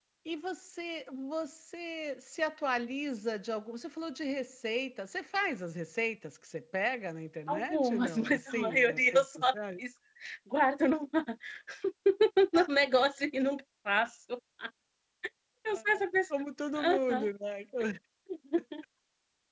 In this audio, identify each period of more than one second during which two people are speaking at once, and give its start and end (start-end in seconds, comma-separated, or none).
7.5-9.5